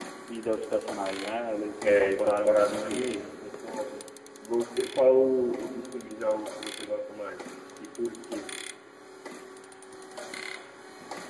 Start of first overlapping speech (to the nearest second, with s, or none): 2 s